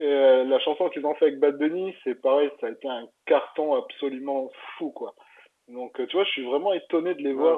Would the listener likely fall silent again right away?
Yes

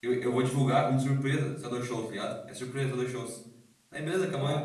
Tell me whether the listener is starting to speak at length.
No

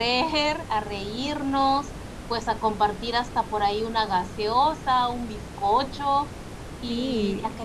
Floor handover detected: No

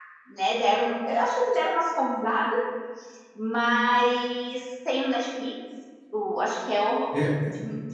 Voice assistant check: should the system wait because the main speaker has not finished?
Yes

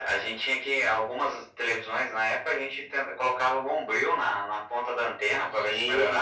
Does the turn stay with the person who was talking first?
No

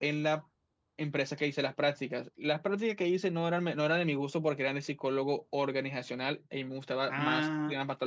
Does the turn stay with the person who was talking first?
No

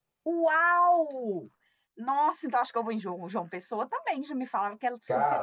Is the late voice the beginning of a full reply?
Yes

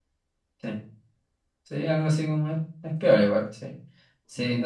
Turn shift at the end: Yes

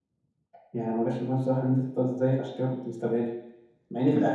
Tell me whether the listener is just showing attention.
No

